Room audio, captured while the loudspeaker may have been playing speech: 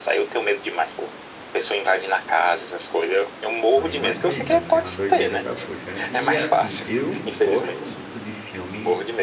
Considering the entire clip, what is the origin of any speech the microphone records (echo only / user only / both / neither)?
both